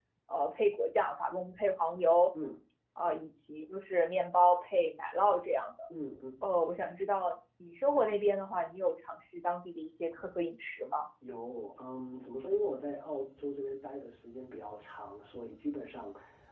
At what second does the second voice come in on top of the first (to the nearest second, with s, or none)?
none